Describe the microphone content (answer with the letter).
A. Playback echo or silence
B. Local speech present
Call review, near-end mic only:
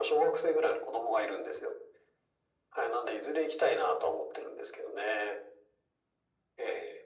A